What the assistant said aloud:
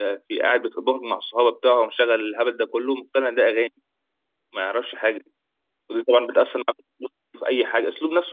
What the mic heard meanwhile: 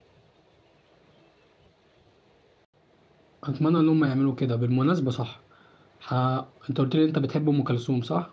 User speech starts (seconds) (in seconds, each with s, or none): 3.4 s